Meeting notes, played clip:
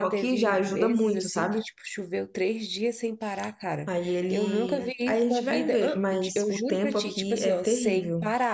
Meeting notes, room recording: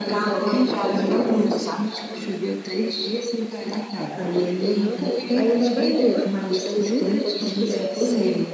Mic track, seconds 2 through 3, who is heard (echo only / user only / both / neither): echo only